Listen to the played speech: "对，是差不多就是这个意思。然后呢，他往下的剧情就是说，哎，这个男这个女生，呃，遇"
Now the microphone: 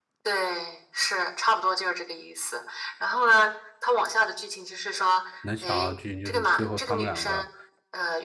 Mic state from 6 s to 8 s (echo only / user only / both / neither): both